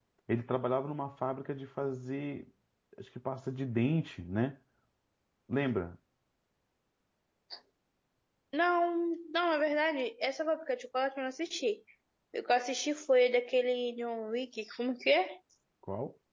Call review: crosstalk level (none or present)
none